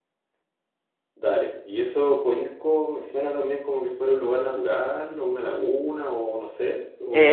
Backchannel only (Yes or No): No